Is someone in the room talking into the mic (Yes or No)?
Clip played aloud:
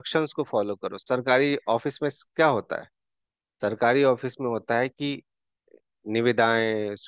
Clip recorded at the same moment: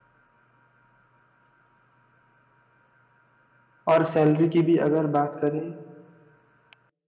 Yes